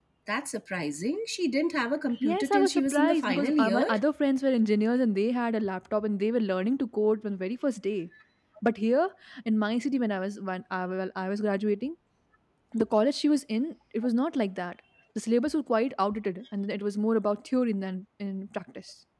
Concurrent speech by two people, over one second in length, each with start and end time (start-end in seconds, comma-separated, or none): 2.2-3.9